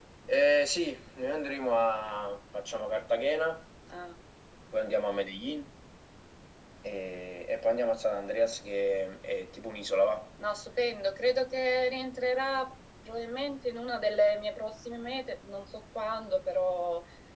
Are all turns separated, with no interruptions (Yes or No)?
Yes